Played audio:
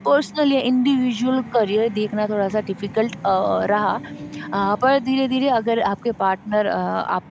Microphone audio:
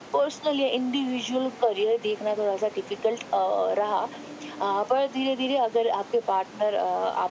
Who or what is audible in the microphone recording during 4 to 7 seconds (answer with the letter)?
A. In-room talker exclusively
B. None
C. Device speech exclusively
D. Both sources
C